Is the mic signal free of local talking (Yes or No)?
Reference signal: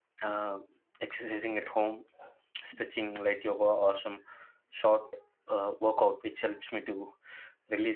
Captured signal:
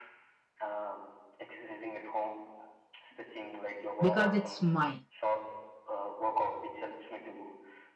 No